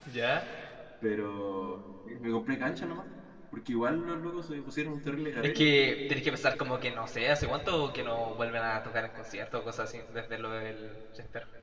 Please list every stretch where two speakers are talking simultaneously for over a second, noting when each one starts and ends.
none

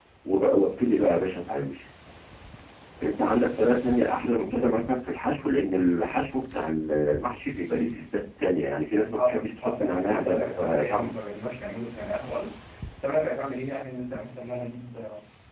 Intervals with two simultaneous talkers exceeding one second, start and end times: 9.2-11.1

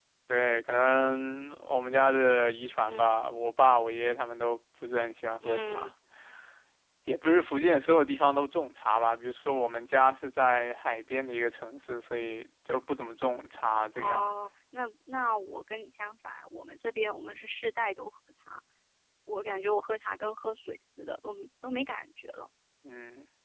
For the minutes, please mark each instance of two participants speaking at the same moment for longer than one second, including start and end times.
none

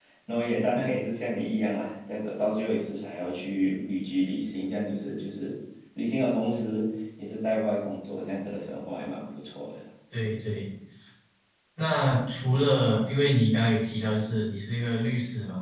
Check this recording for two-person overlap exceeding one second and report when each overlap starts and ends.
none

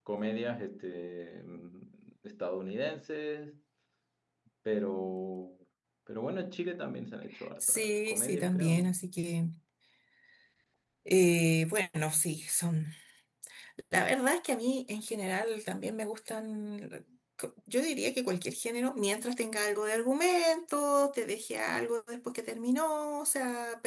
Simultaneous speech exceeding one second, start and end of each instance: 7.6-8.9

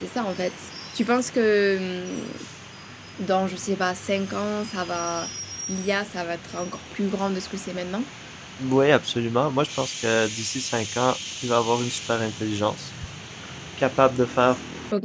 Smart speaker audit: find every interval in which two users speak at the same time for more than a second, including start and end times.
none

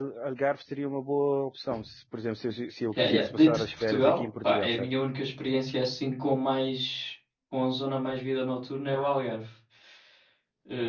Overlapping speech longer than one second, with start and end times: 2.9-4.9

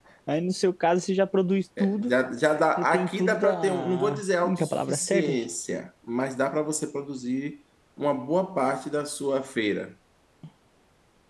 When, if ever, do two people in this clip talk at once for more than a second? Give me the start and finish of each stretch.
2.8-5.4

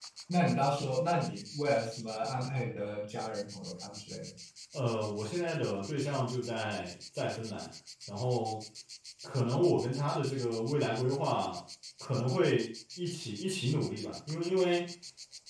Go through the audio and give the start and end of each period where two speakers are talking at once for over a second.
none

